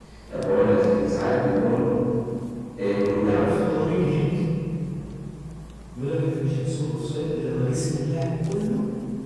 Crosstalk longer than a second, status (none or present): none